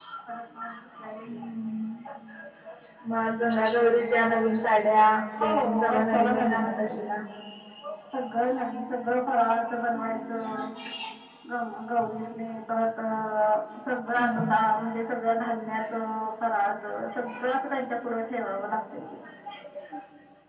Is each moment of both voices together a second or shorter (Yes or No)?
No